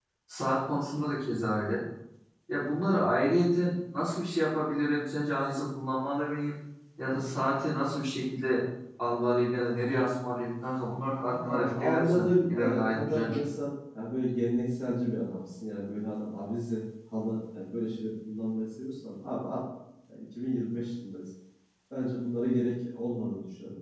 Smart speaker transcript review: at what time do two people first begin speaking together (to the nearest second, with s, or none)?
11 s